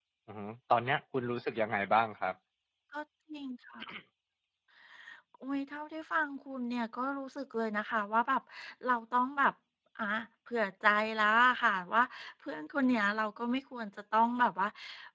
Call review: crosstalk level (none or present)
none